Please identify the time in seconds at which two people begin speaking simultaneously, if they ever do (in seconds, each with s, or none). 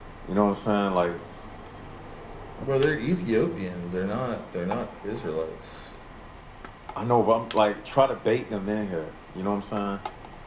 none